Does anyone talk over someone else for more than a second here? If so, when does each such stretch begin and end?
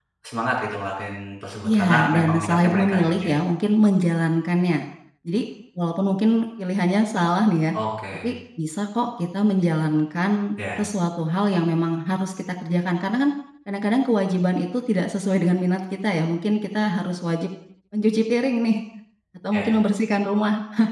1.6-3.3

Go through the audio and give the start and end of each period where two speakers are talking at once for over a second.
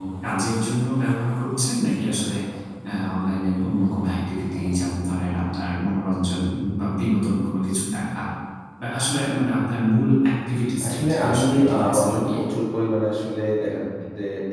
10.9-12.4

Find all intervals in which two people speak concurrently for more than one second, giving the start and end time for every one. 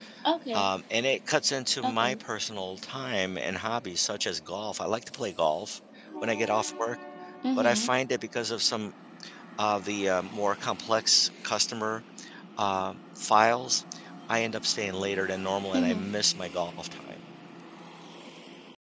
none

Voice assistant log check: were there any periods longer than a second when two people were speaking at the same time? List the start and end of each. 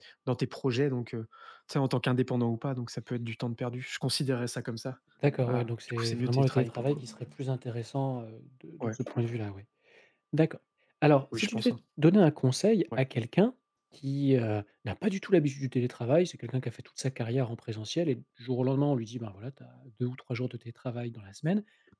5.5-7.0

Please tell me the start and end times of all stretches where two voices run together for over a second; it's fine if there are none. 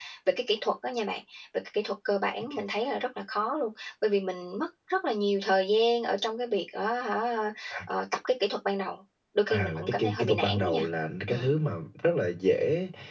9.5-10.8

